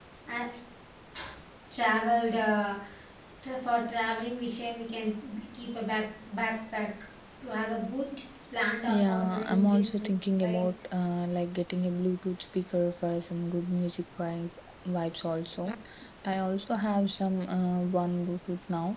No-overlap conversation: No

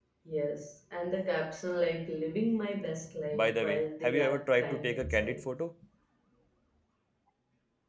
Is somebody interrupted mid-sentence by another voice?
Yes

